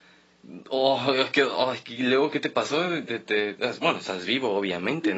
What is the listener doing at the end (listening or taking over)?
taking over